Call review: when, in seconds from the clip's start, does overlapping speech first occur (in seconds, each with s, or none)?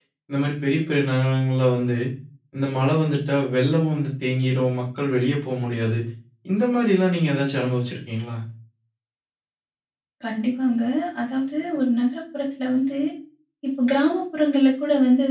none